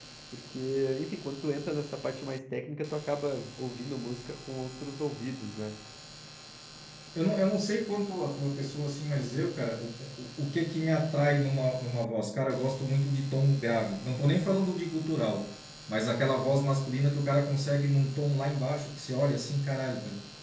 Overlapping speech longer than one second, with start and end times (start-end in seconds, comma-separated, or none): none